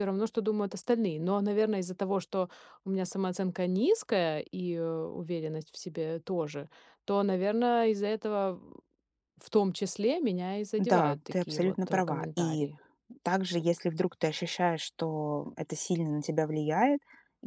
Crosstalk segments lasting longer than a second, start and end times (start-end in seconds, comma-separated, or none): 10.8-12.7